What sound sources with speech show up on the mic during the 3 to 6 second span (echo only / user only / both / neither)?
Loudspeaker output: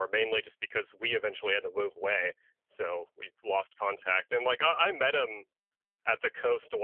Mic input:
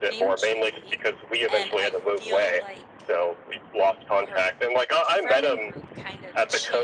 both